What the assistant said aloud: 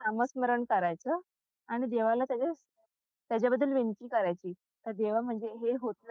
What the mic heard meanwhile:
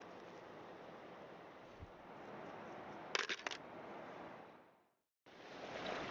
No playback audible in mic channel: Yes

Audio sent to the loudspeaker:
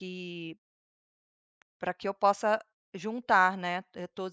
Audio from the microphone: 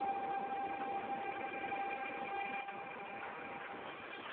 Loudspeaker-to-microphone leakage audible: No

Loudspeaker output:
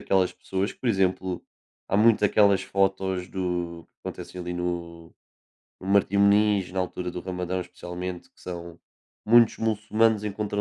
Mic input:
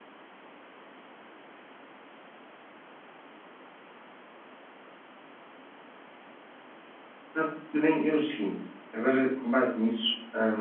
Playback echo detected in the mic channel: No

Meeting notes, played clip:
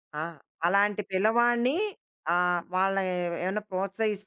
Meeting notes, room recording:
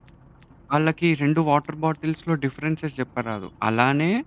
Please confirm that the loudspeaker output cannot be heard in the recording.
Yes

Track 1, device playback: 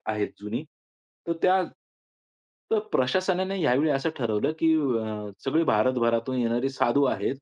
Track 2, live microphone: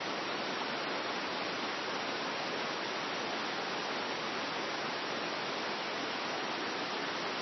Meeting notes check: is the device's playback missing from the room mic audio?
Yes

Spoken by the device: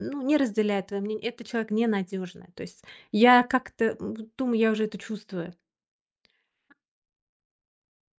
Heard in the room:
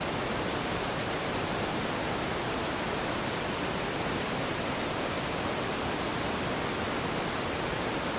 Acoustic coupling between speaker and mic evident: No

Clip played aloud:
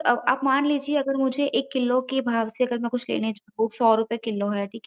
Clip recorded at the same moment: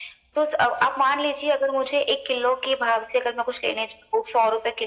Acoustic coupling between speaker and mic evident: Yes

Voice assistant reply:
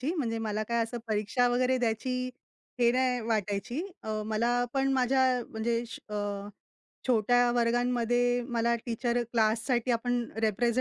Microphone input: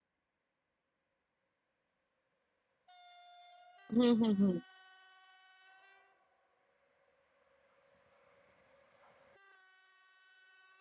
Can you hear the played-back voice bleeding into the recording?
No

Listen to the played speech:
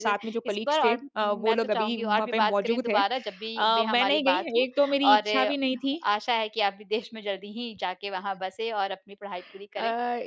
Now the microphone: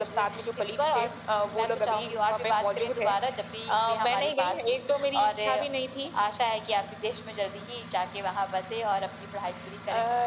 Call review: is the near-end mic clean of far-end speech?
No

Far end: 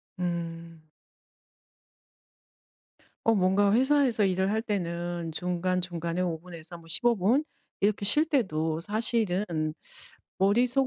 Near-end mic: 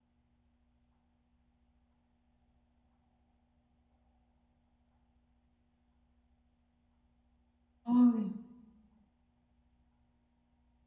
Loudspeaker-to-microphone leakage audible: No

